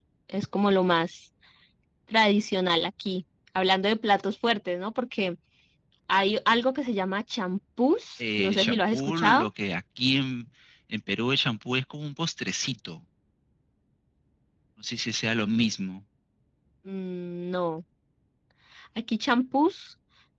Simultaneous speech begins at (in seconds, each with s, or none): 8.2 s